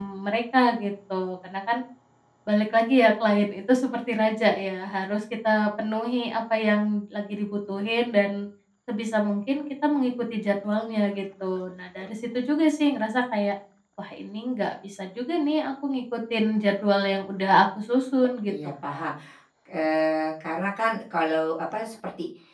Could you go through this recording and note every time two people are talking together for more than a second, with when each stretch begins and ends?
none

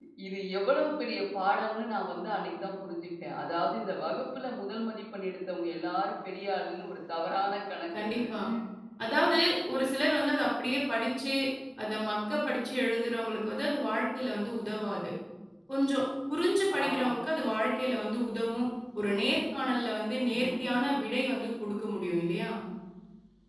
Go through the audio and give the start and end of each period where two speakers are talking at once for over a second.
none

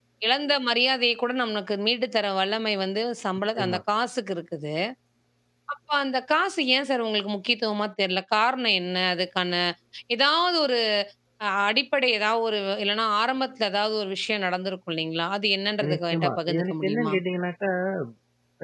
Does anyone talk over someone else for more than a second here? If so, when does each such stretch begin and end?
15.9-17.1

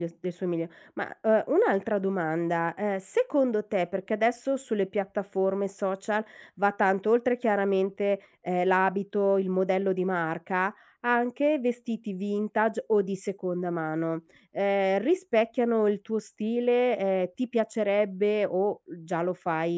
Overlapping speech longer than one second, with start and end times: none

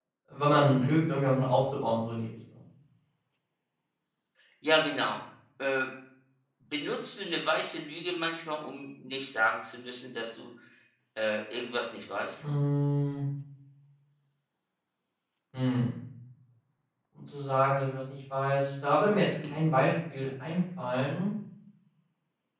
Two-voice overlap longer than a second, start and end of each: none

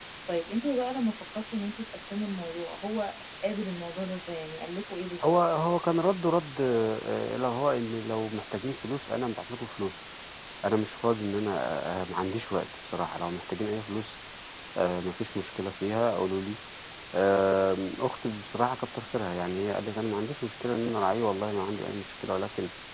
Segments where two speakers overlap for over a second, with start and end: none

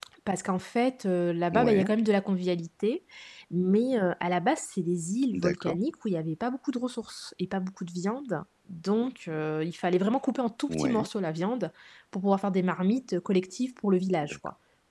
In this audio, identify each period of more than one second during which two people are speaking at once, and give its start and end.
none

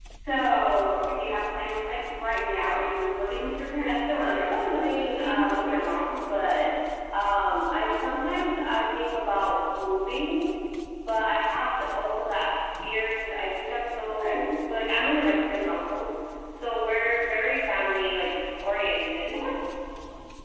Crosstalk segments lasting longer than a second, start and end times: 3.7-5.9

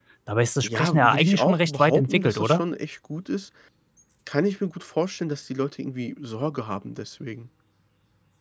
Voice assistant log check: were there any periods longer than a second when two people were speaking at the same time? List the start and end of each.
0.6-2.6

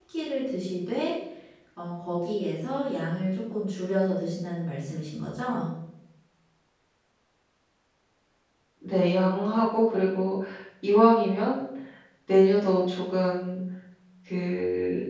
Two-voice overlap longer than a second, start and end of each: none

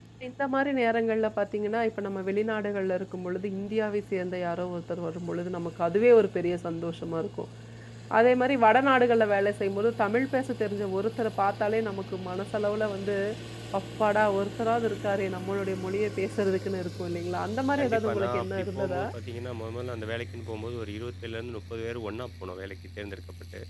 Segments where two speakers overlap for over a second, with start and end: 17.8-19.0

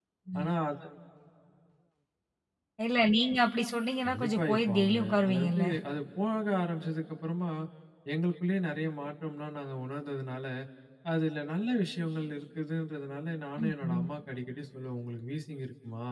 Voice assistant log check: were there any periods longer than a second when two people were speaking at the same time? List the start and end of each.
4.1-5.6

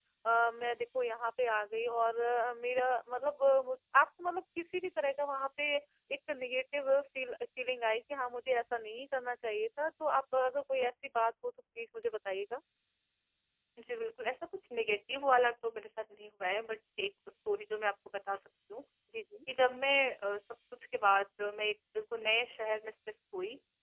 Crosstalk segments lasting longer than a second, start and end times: none

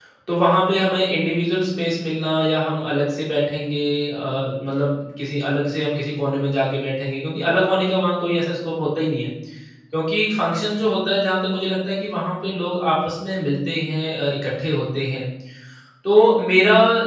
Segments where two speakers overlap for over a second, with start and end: none

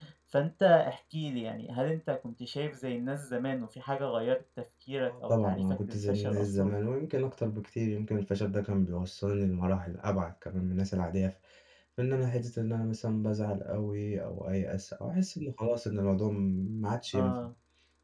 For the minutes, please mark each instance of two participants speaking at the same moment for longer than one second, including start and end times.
5.1-6.7

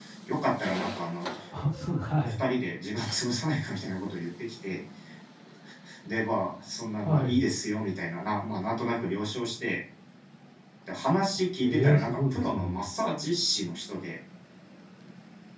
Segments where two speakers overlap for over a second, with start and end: 11.6-12.8

